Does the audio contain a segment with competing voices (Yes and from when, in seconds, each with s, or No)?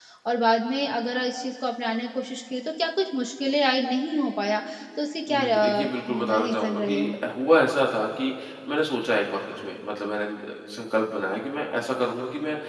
Yes, from 5.3 s